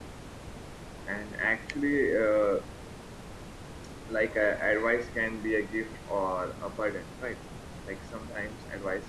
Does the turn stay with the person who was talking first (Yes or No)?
Yes